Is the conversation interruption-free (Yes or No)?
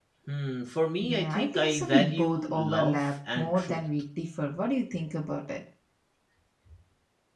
No